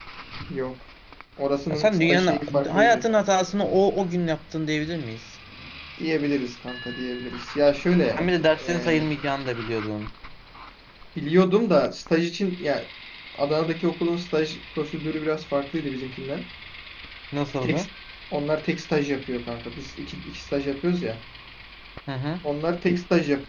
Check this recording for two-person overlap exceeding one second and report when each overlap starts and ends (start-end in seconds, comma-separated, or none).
1.7-3.1